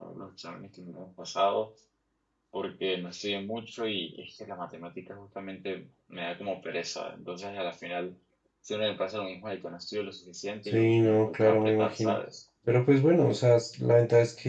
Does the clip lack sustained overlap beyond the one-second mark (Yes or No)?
No